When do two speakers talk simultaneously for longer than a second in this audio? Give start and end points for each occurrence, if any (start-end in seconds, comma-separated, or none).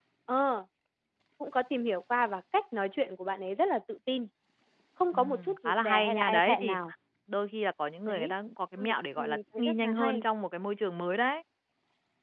5.1-6.8, 8.8-10.2